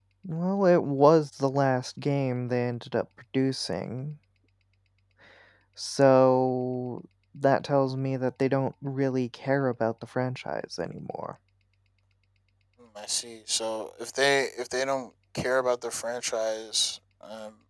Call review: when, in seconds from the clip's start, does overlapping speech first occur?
none

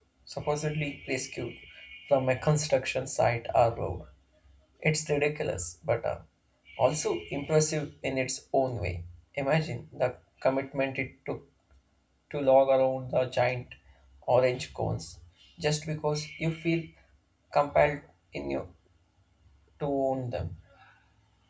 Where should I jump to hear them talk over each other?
none

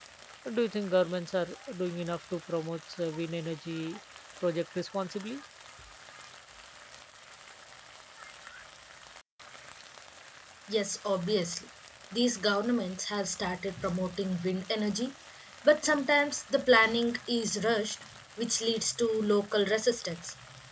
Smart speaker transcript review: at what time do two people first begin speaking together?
none

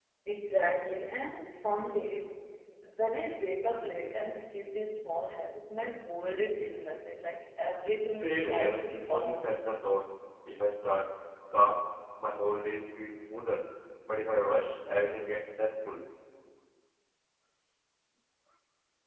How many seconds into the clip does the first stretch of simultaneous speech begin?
8 s

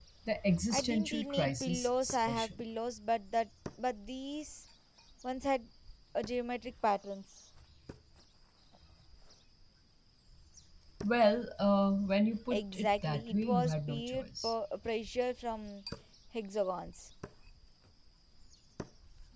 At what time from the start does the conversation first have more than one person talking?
1 s

